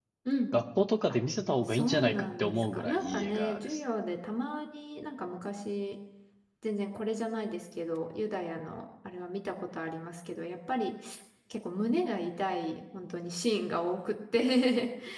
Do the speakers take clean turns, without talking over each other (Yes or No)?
No